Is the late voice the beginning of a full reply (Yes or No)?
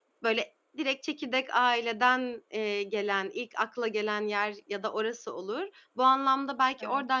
No